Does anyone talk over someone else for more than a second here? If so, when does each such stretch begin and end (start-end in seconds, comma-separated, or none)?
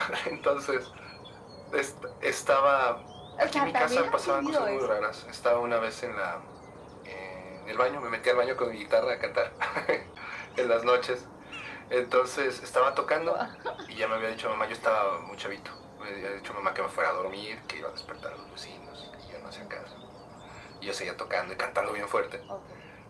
3.4-4.8